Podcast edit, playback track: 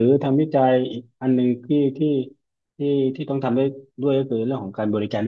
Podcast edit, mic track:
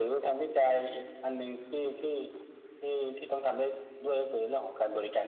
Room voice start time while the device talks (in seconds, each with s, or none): none